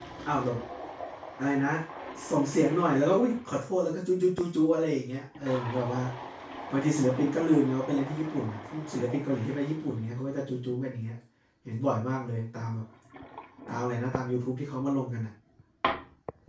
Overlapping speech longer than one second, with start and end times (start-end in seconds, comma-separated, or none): none